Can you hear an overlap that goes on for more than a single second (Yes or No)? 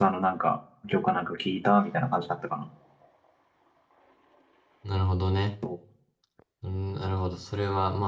No